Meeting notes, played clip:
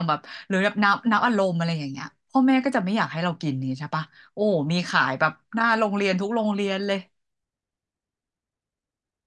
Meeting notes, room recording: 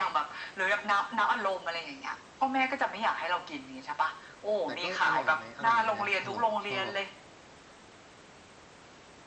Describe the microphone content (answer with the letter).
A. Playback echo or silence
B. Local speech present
B